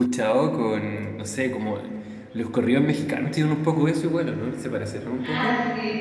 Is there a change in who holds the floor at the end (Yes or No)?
Yes